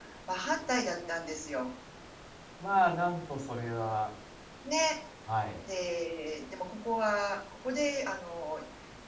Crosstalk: none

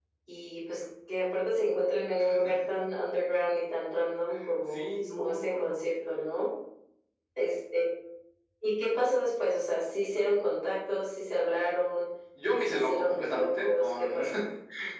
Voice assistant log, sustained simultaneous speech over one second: present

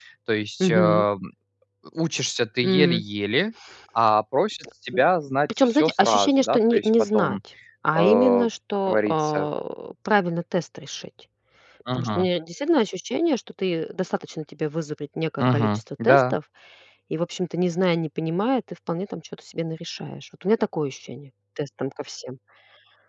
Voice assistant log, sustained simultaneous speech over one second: present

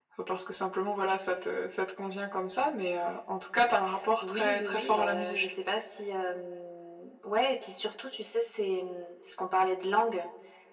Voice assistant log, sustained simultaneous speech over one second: present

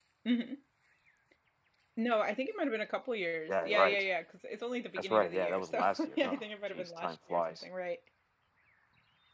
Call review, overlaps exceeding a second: present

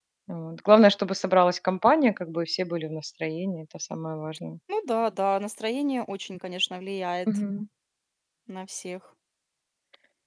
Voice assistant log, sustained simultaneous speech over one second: none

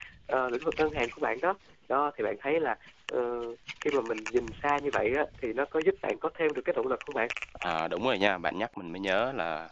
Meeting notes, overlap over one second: none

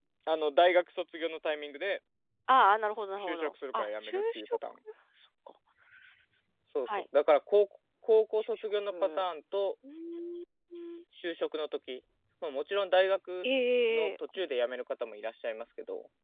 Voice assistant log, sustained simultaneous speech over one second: present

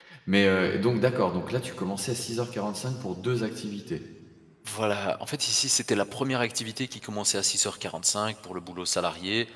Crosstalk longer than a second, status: none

